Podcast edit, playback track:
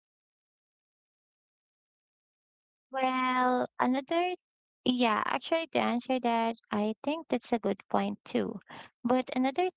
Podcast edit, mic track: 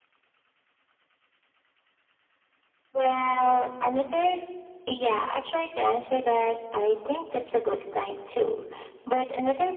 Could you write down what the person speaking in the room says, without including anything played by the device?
none

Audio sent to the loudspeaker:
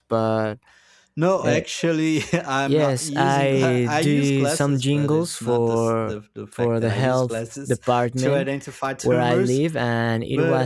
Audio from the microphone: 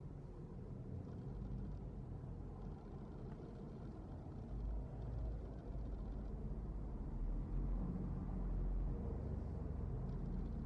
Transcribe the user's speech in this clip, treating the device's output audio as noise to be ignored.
none

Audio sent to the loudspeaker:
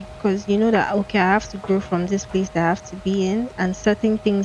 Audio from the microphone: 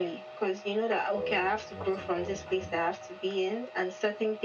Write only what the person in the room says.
um, what's it called again?

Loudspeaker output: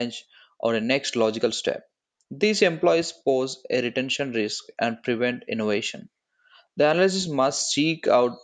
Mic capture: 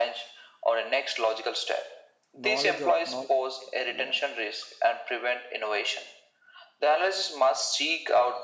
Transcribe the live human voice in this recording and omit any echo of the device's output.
knowledge of knowledge, edge, yeah,

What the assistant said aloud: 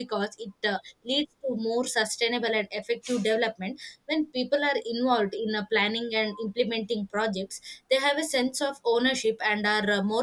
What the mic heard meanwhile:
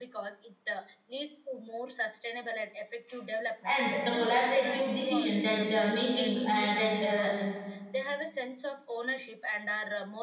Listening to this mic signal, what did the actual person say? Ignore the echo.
and the collaborative decision that uh, making uh, that uh,

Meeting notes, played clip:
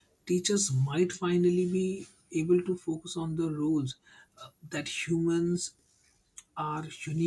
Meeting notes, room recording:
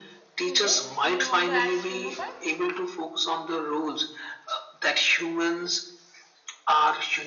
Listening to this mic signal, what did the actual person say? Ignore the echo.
so yes you want to add still more points

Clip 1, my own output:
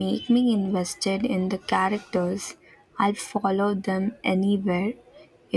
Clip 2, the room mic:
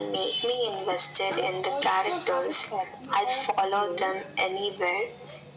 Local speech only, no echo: I also have a copy of Dune.

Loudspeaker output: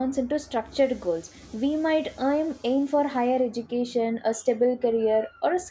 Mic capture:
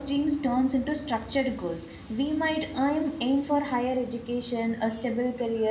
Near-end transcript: none

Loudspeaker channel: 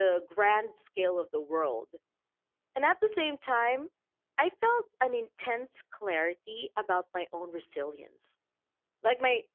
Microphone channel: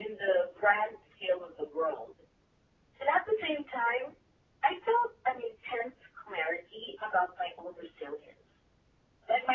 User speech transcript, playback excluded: none

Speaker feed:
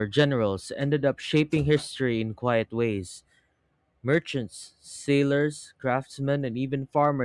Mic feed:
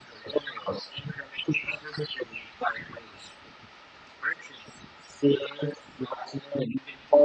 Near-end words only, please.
none

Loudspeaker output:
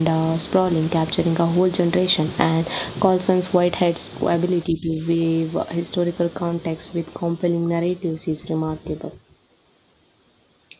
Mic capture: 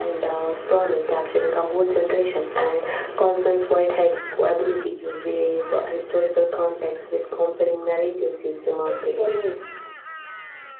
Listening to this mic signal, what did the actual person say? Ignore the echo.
It really is.

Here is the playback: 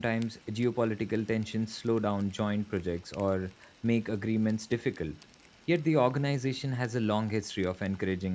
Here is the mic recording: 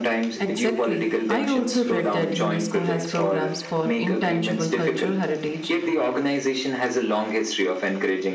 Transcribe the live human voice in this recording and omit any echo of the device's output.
Exactly. I also read that UNESCO has programs for intangible cultural heritage

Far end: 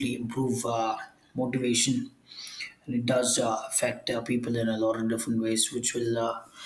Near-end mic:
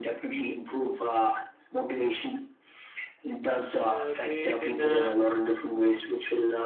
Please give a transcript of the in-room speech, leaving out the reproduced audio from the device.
uh, made in a

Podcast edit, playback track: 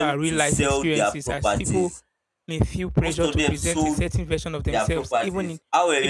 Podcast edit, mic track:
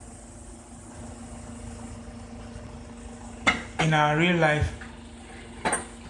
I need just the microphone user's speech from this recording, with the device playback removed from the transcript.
in our real life

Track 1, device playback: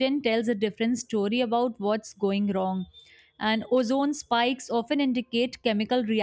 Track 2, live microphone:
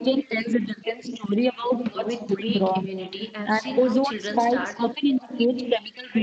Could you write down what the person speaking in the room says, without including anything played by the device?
with weak immunity, I've seen how children start

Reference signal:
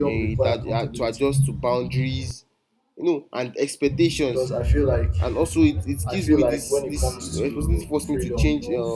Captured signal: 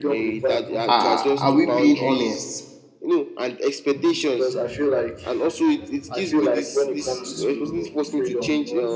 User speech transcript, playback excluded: are, are we being honest

